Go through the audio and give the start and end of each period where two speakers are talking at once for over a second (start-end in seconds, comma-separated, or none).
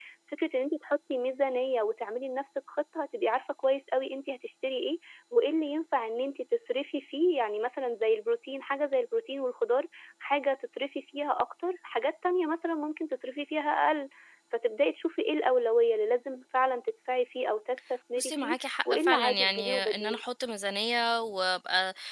18.2-20.2